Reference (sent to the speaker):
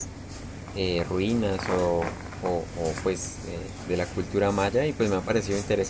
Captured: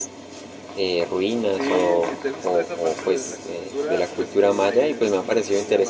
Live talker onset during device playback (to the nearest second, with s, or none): 1 s